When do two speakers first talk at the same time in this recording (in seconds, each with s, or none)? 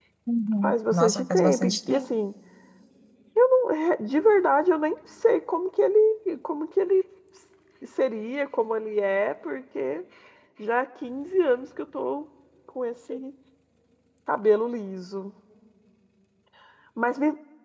0.6 s